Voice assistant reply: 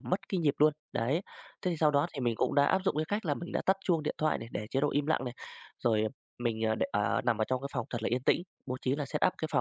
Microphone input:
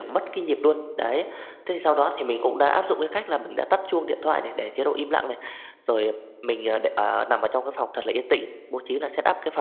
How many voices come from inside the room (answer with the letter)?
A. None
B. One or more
A